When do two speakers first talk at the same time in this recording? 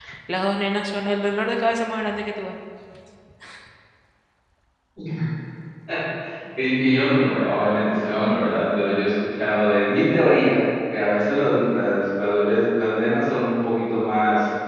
none

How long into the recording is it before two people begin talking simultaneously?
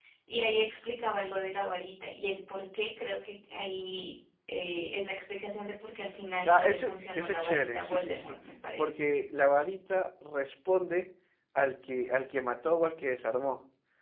6.5 s

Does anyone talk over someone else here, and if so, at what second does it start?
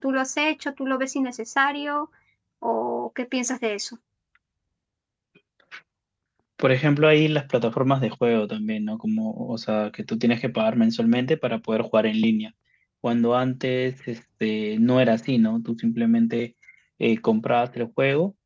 none

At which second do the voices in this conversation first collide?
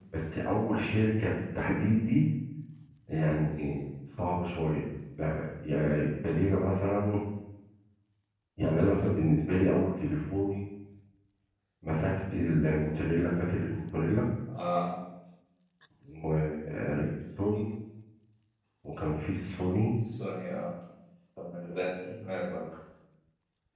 none

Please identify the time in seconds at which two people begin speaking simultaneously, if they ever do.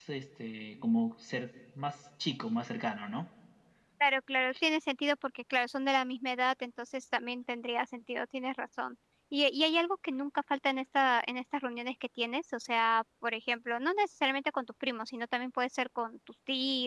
none

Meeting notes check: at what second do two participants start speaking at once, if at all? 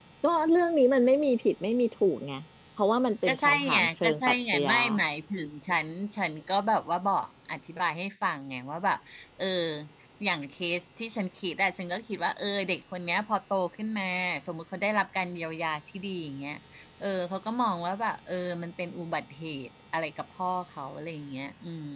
3.2 s

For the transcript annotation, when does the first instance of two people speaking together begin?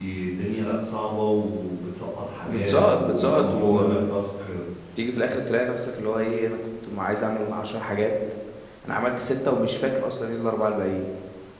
2.4 s

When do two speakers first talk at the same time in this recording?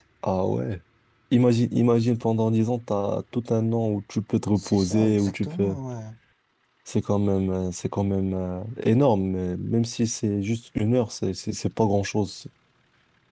4.6 s

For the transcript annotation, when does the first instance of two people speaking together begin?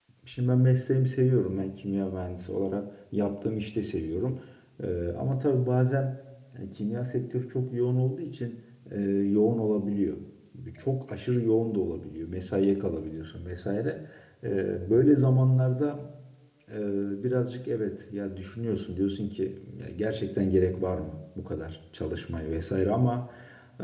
none

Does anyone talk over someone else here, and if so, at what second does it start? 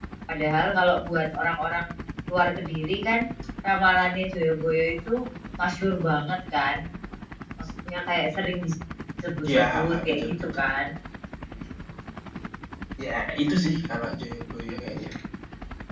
9.4 s

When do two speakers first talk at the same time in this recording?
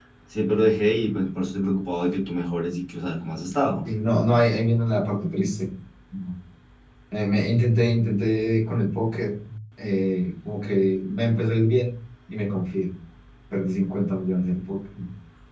none

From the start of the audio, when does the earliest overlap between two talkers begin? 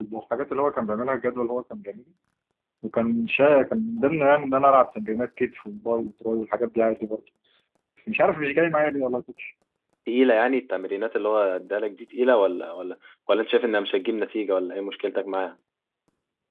none

